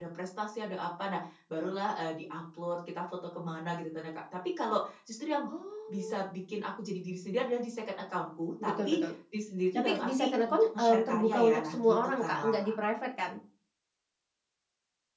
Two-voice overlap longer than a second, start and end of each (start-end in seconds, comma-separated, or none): 9.8-12.7